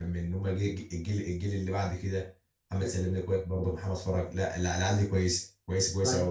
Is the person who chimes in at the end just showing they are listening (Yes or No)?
No